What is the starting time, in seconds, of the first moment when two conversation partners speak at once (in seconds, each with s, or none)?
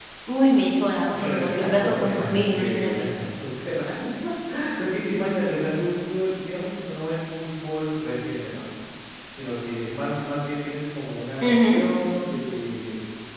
1.2 s